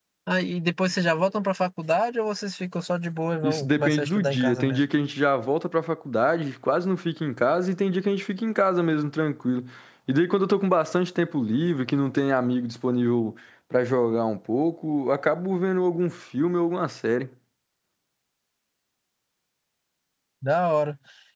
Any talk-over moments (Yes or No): Yes